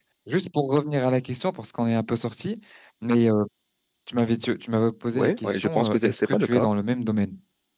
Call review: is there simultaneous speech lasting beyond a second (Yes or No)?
Yes